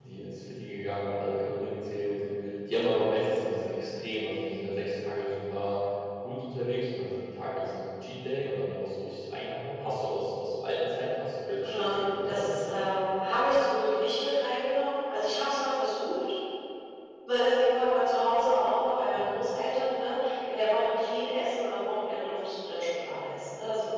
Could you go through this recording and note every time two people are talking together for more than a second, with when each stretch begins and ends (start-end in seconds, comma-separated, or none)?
11.6-12.9